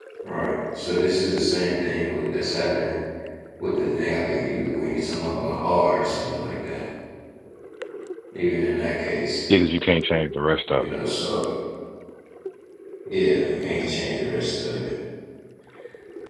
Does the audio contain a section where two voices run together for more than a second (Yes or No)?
No